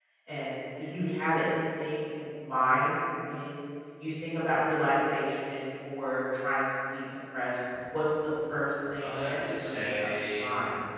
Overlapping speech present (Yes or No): Yes